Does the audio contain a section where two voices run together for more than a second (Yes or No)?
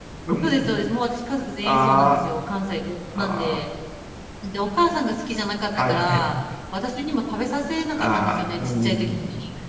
Yes